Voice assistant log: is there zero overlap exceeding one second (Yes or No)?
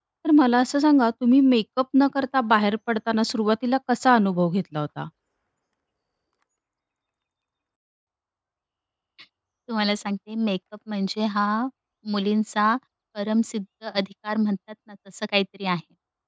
Yes